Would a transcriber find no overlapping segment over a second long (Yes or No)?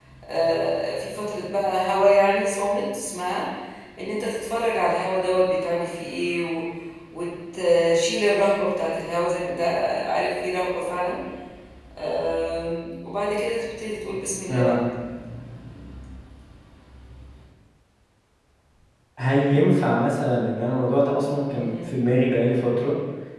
Yes